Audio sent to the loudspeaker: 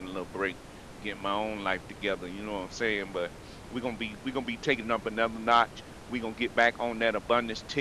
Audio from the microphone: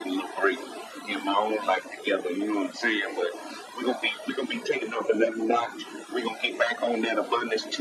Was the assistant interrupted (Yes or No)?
No